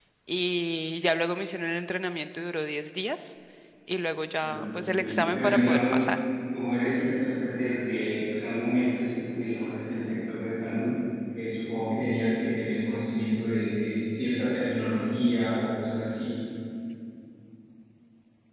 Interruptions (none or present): present